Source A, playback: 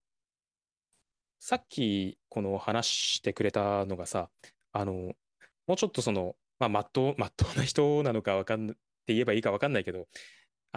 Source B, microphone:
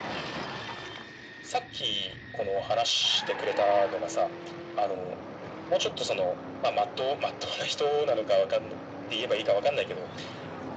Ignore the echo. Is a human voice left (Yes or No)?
No